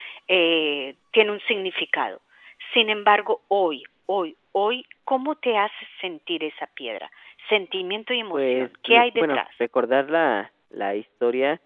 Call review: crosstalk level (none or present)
present